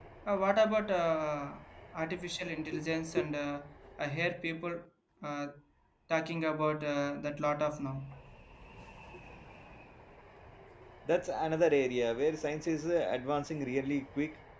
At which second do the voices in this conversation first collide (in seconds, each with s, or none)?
none